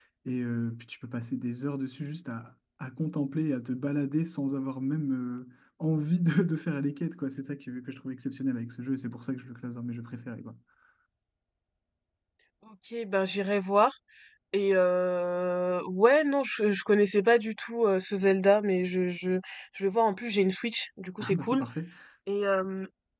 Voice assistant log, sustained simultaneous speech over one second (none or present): none